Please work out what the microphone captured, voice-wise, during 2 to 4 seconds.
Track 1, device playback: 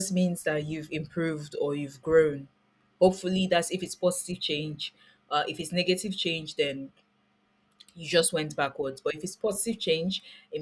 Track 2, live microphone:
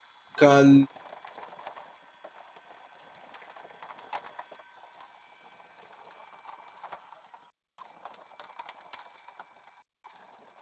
neither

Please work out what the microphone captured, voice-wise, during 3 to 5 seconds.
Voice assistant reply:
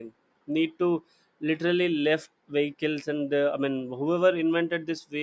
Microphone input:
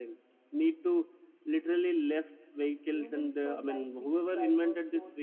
both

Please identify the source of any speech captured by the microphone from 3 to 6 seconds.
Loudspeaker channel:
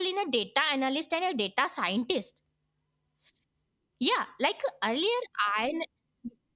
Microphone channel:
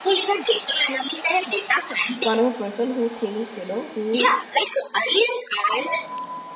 both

